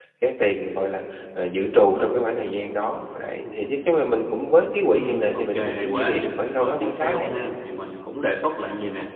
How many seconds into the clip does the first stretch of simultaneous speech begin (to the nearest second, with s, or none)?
5 s